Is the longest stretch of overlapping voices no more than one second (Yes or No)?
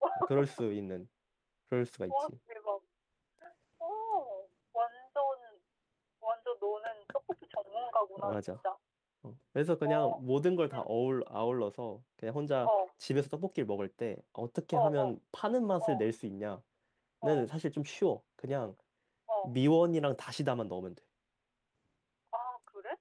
Yes